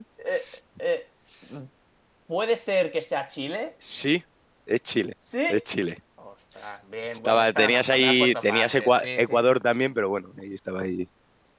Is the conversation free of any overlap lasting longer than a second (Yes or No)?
No